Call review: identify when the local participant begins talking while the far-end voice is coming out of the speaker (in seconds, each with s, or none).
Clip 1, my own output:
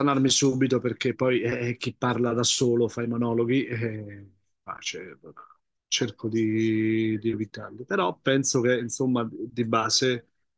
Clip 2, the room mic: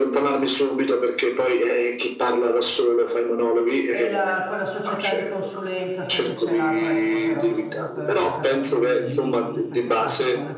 3.9 s